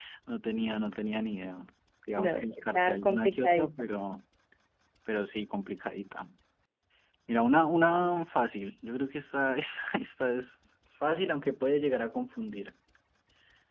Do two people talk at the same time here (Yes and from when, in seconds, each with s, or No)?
Yes, from 2.2 s